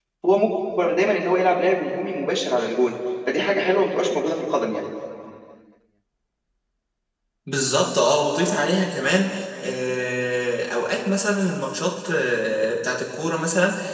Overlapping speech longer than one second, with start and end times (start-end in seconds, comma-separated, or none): none